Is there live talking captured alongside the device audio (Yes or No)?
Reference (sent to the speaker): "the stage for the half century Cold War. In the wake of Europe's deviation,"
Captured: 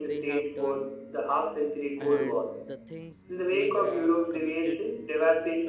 Yes